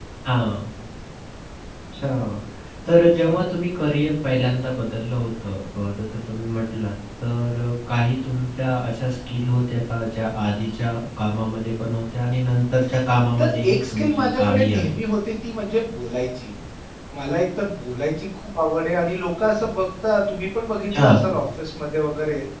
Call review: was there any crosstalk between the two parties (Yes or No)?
Yes